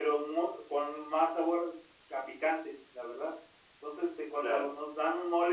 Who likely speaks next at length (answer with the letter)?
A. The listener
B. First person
B